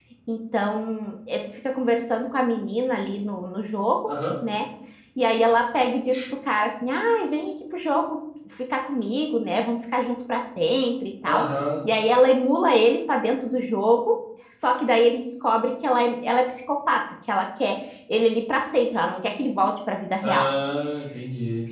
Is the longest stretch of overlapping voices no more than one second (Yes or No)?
Yes